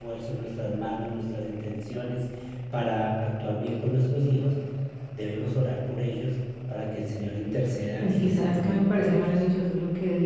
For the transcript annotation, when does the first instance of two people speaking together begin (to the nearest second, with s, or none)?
8 s